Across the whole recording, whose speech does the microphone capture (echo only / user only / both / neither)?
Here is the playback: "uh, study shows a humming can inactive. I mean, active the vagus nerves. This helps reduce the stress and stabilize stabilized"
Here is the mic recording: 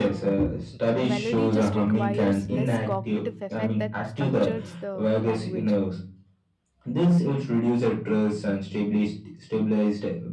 both